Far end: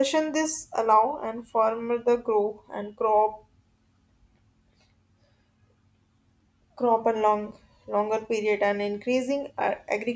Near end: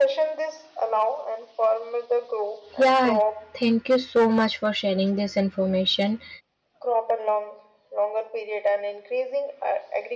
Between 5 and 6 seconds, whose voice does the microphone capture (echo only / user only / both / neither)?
user only